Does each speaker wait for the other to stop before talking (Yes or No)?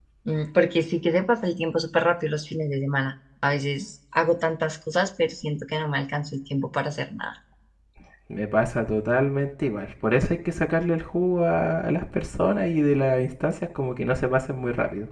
Yes